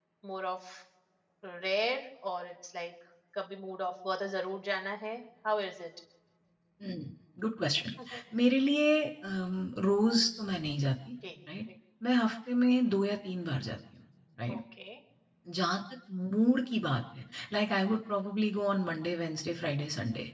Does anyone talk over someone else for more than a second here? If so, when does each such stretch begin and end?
none

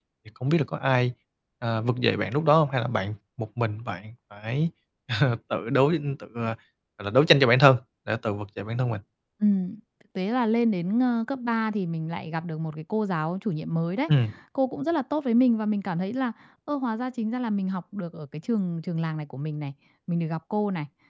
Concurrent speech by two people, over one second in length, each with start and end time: none

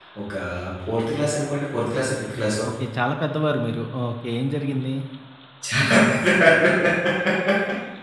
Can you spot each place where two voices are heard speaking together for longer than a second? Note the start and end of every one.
none

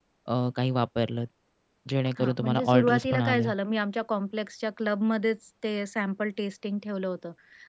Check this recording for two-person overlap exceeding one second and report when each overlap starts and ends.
2.2-3.5

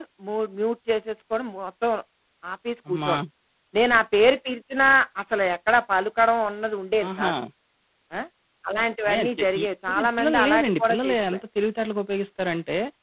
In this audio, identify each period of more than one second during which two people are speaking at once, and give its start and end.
9.1-11.4

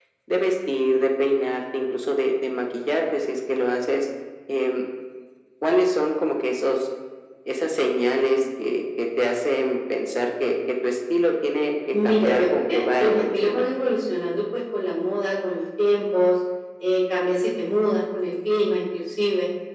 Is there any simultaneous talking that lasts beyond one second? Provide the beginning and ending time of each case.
11.9-13.7

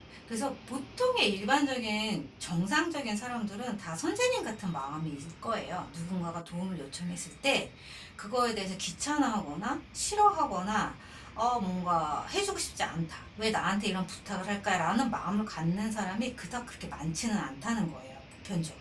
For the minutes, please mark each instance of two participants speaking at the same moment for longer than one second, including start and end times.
none

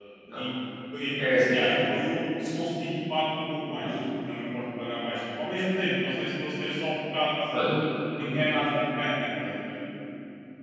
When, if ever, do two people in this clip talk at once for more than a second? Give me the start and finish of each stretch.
none

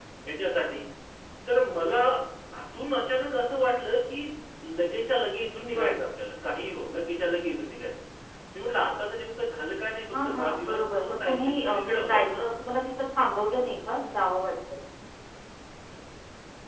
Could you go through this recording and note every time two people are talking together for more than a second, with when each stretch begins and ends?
10.1-12.4

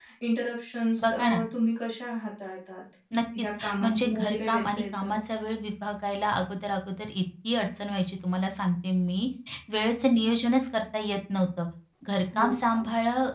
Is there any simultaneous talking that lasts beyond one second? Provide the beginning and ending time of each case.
3.4-5.2

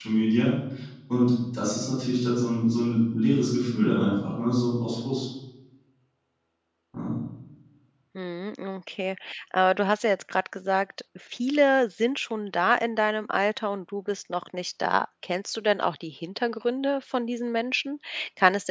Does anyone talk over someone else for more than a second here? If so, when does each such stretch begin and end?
none

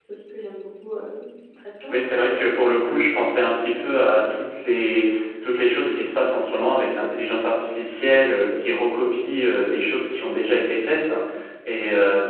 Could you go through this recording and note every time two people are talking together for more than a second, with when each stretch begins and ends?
none

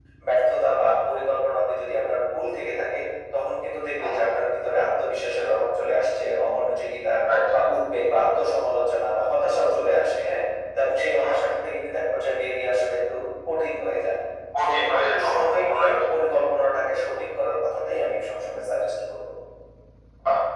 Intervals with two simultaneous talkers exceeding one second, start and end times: 14.6-15.9

